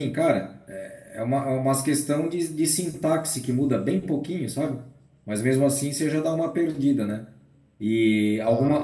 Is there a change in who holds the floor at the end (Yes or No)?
No